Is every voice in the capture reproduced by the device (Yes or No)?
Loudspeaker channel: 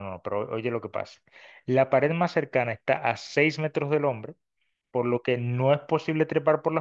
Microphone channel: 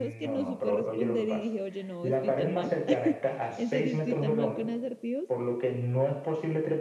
No